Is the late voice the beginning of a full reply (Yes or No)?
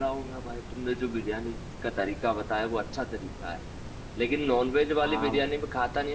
No